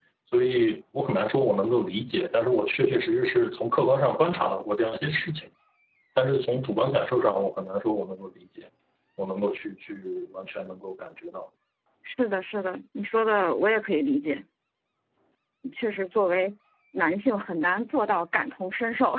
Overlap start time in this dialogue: none

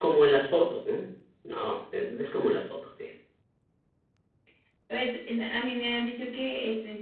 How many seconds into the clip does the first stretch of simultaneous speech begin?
none

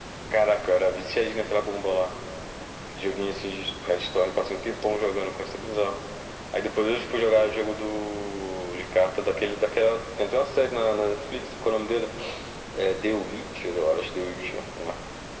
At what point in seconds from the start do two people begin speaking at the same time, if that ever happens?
none

